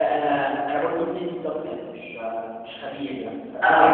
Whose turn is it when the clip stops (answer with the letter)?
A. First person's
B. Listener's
A